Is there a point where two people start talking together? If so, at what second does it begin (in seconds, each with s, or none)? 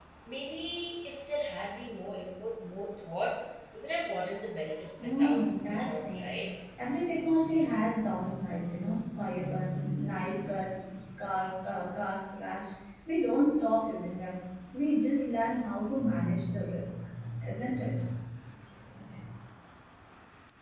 5.0 s